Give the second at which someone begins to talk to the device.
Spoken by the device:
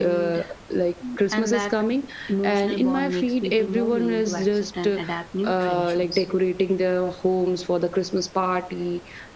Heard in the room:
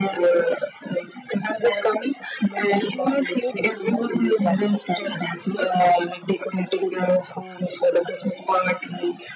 none

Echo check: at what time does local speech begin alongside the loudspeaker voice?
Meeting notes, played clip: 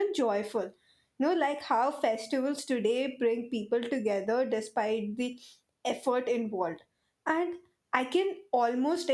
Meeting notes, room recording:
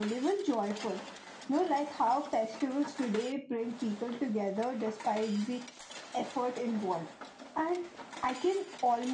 none

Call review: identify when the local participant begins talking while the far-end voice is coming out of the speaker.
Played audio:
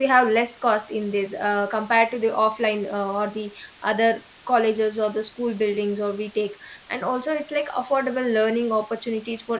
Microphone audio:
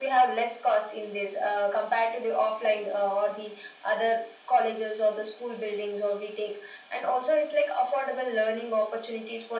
none

